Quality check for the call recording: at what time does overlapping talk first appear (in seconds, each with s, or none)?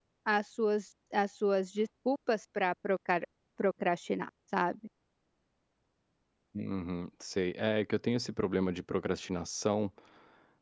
none